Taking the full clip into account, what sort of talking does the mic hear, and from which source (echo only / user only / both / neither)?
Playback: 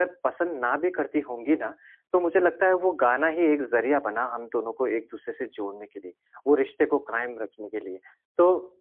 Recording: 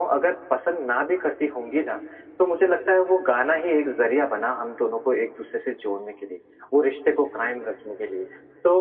echo only